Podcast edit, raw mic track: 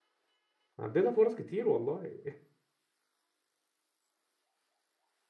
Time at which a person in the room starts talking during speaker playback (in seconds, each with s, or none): 0.8 s